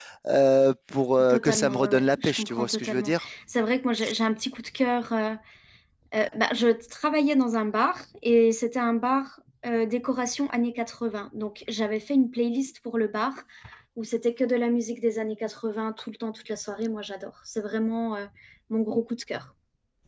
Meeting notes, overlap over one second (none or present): present